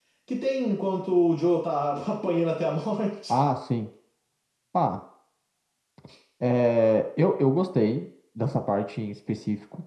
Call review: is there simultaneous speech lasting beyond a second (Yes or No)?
No